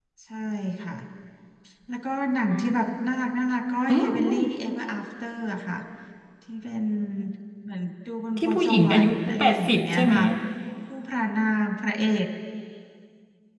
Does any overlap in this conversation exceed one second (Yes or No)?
Yes